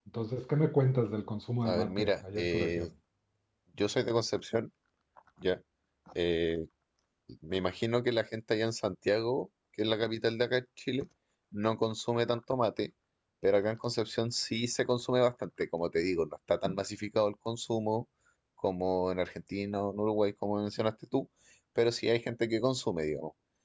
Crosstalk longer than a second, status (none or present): present